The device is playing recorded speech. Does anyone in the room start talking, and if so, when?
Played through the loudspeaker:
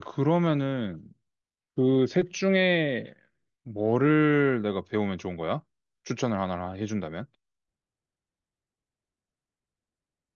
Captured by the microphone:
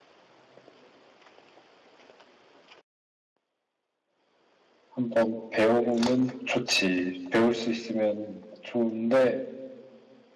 5 s

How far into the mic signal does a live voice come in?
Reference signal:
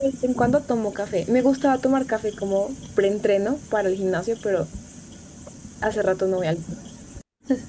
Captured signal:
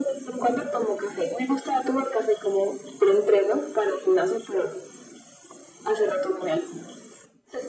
none

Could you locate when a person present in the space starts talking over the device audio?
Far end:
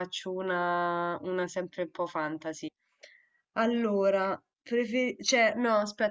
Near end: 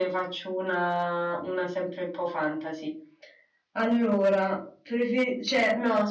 none

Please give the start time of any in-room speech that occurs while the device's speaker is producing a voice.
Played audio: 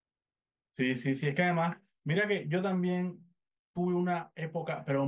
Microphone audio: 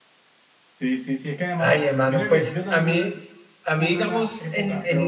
2 s

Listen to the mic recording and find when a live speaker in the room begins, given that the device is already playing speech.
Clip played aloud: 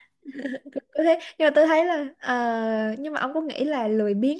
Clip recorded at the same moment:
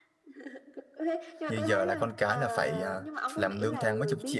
1 s

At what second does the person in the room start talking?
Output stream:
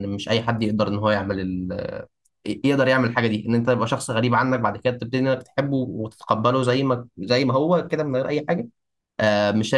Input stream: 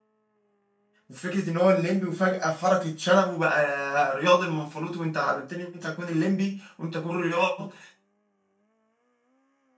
1 s

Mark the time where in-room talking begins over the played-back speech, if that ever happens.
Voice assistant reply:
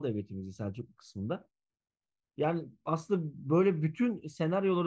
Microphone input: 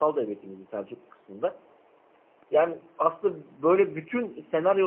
none

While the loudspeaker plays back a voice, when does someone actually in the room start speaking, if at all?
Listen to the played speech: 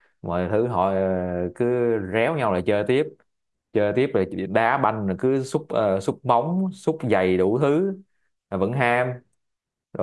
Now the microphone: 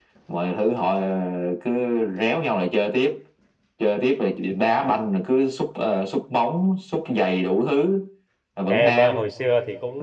9 s

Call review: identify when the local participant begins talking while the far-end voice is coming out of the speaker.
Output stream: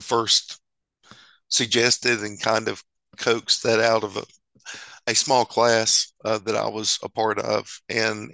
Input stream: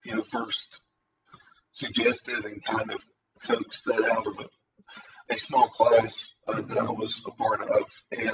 7 s

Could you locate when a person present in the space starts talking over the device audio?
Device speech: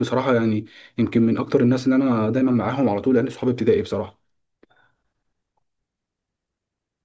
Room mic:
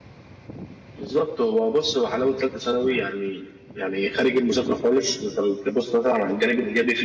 1 s

